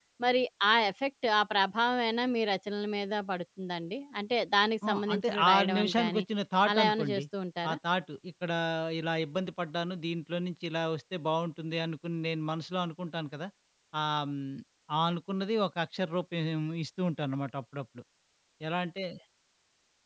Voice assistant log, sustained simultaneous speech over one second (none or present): present